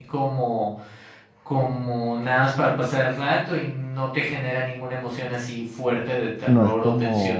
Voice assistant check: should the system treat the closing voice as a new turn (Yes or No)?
Yes